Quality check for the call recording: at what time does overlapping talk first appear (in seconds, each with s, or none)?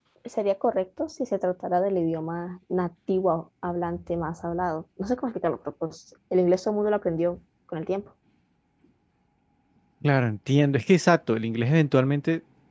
none